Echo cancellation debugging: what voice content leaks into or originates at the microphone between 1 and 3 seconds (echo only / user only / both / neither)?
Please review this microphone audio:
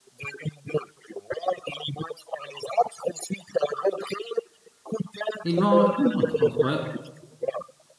echo only